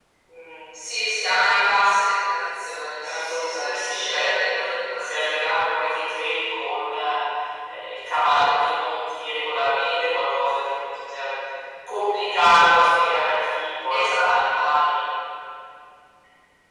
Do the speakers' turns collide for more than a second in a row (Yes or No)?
Yes